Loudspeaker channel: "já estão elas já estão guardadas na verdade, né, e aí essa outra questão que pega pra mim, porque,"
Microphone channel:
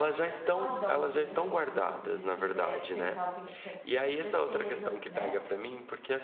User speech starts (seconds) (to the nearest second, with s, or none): 0 s